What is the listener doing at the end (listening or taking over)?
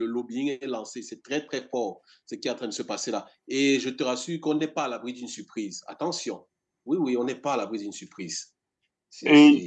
taking over